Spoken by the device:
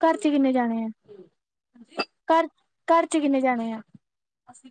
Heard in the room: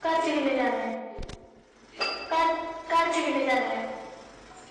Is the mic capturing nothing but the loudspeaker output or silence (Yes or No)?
Yes